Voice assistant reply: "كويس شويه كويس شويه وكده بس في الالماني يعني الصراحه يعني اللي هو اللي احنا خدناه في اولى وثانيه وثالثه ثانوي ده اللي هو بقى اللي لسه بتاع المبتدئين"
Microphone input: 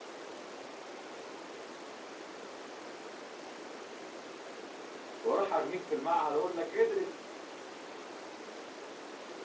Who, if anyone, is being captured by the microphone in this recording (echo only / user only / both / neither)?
user only